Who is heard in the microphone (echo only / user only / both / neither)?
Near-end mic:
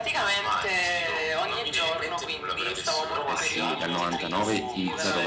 both